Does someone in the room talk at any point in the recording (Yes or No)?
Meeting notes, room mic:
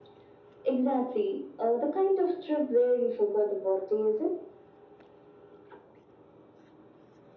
No